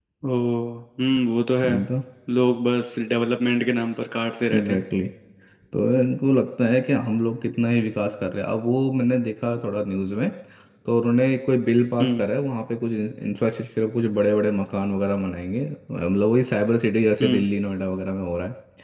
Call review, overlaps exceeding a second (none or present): none